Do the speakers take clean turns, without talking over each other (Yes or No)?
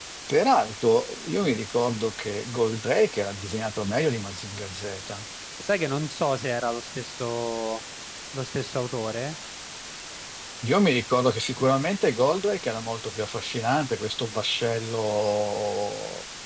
Yes